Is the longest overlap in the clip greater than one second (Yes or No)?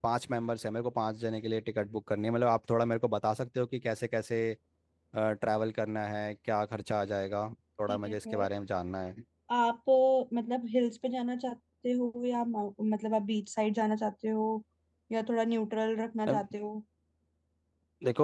No